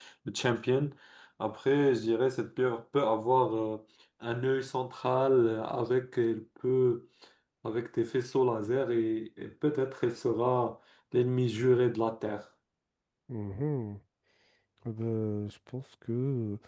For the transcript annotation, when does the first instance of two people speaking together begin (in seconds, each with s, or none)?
none